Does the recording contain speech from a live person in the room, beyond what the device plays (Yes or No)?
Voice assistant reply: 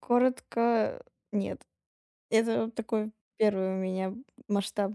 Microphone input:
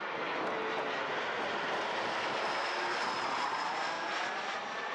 No